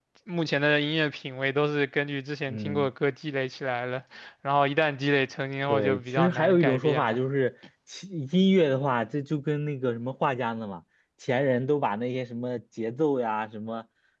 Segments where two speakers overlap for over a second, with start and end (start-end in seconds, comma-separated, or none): 5.6-7.2